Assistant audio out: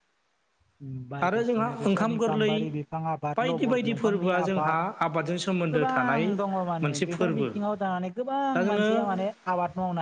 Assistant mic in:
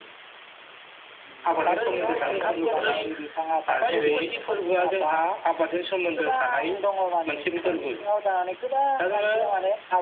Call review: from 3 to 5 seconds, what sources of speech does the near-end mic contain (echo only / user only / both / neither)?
both